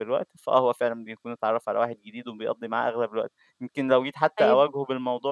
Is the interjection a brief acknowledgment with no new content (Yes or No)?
Yes